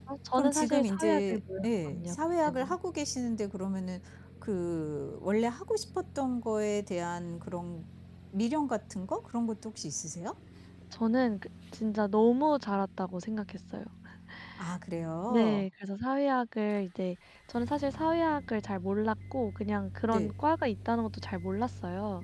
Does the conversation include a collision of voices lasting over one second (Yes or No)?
Yes